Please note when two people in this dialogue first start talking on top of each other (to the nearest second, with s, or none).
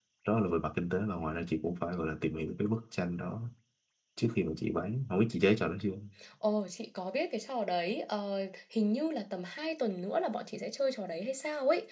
none